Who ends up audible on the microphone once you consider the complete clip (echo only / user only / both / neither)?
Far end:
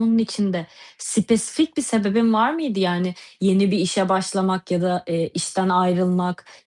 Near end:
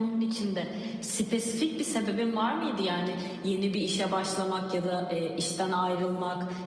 echo only